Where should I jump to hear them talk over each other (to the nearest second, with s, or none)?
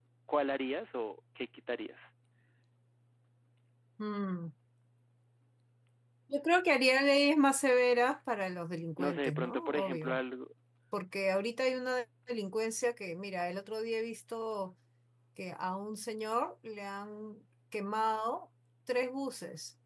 9 s